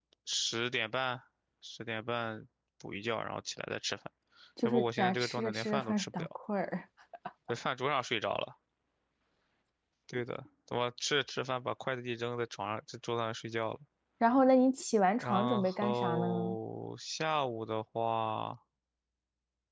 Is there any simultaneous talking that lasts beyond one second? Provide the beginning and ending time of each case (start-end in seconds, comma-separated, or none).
4.6-6.3, 15.2-16.6